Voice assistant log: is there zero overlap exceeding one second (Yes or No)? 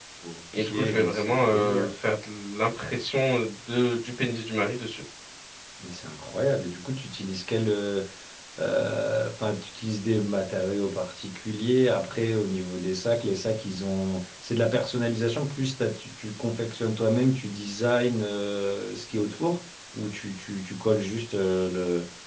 No